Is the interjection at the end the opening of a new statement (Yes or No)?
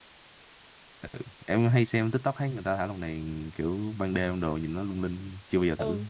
Yes